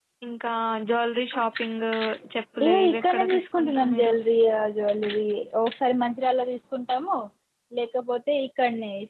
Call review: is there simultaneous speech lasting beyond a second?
Yes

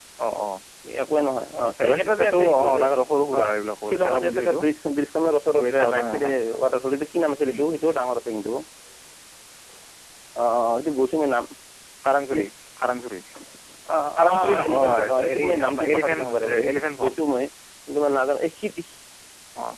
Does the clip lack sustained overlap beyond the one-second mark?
No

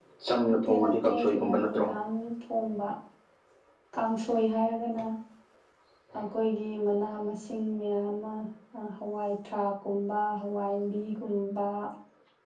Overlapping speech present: Yes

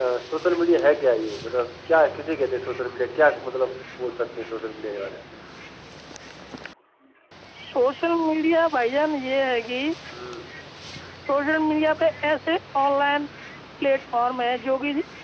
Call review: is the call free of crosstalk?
Yes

